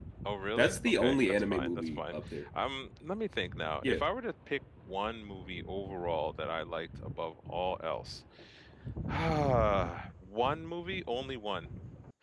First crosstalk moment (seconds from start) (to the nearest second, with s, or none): 1 s